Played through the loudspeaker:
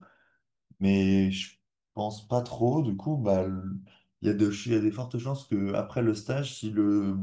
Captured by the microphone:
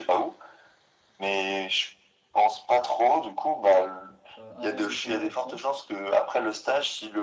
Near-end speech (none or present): present